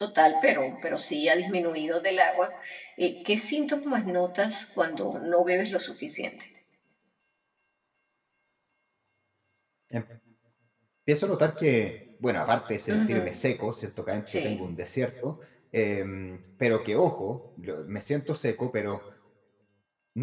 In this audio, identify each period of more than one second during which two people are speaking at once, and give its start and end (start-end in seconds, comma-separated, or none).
none